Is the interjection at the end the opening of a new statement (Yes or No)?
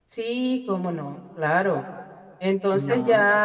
No